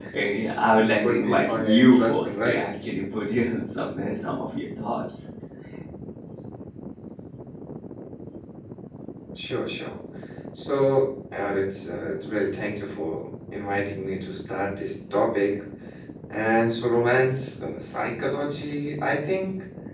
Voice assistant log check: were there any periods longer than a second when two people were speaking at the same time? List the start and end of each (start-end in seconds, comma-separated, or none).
1.0-2.6